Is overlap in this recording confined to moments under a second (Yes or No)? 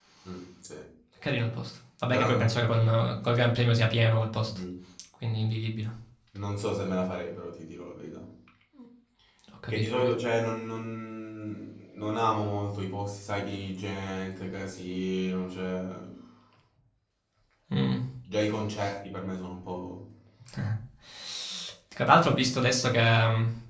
Yes